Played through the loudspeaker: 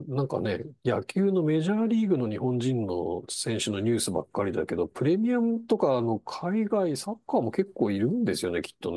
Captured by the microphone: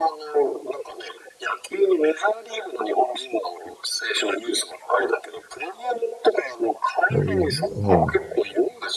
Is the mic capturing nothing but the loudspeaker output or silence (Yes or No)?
No